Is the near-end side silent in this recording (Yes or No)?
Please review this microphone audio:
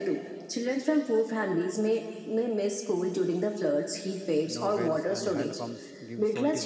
No